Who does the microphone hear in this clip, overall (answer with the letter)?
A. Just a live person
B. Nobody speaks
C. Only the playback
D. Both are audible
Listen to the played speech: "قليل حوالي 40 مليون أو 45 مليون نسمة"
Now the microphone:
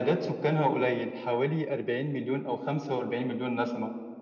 C